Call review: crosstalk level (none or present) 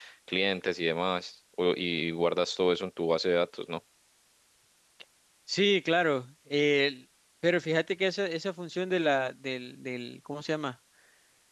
none